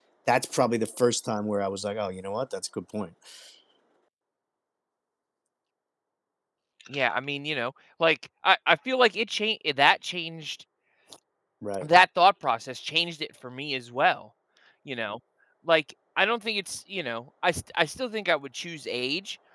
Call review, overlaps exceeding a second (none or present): none